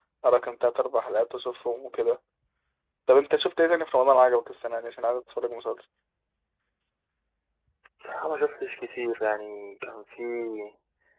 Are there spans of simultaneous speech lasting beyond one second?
No

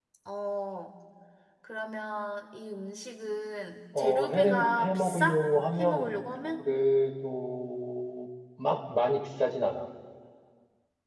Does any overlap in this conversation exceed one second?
Yes, from 4.0 s

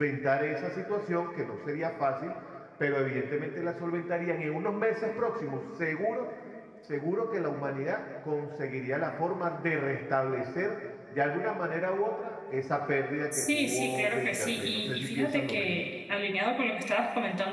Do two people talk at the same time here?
Yes, from 13.3 s

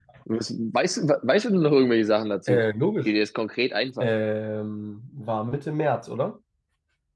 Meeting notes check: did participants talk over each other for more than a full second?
No

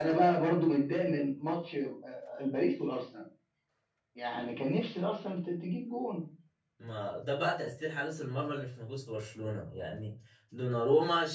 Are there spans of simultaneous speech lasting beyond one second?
No

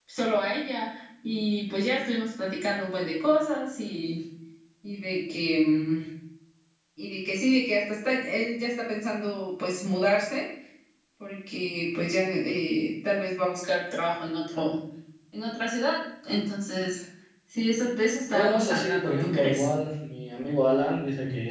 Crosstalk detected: Yes, from 18.3 s

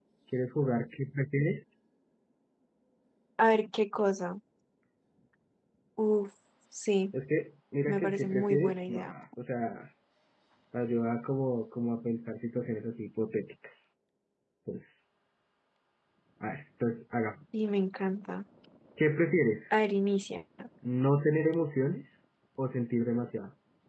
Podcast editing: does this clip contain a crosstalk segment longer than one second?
Yes, from 7.9 s

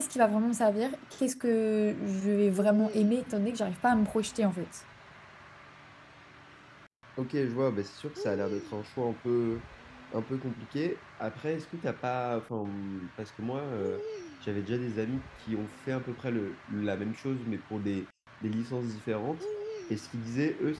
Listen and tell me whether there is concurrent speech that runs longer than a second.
No

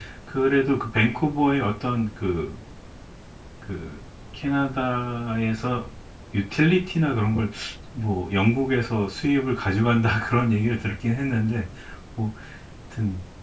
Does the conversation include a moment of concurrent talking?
No

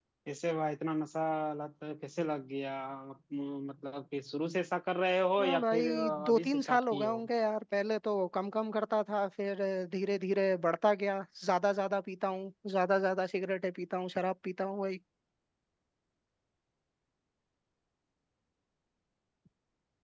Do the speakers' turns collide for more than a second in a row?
Yes, from 5.4 s

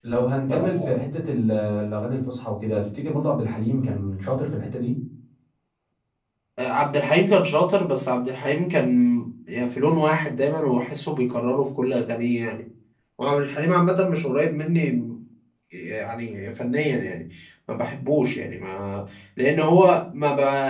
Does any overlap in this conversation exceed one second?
No

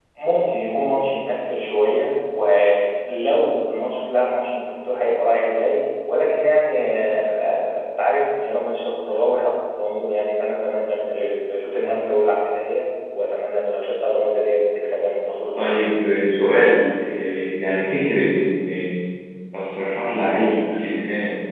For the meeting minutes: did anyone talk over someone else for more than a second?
No

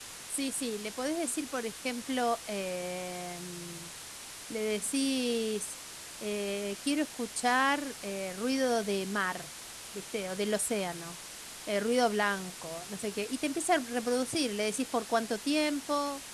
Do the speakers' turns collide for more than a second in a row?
No

